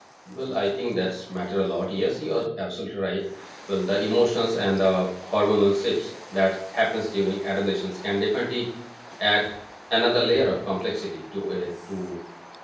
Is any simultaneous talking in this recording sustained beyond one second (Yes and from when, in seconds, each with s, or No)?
No